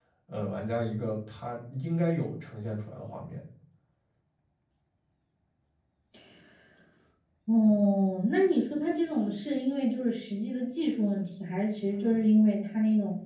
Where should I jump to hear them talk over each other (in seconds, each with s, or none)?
none